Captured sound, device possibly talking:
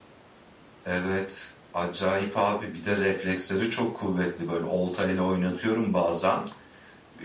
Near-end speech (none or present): present